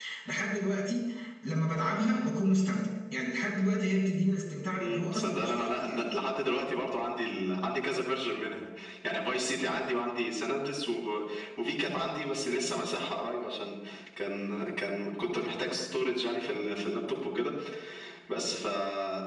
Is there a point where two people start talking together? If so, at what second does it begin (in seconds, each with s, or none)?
4.8 s